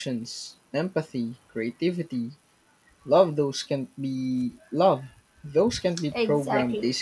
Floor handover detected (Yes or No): Yes